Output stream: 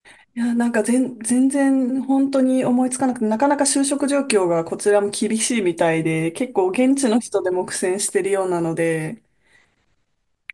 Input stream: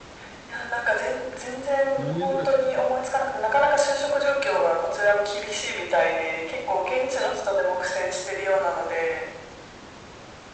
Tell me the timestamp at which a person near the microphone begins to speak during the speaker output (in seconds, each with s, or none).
2.0 s